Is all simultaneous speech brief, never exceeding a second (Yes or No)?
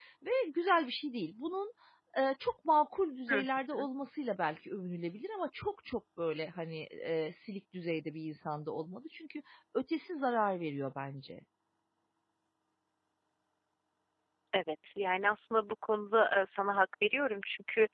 Yes